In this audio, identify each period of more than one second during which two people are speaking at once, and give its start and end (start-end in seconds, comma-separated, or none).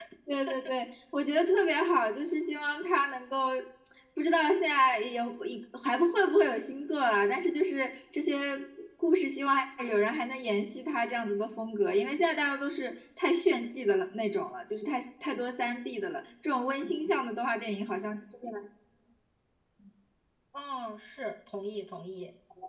none